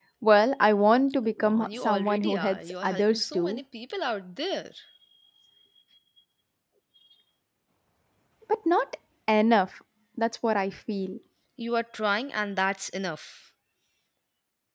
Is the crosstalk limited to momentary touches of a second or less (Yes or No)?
No